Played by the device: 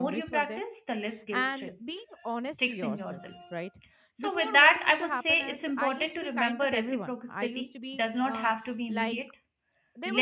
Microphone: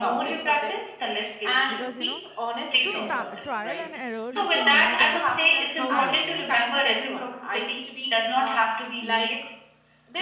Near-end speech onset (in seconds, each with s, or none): 1.7 s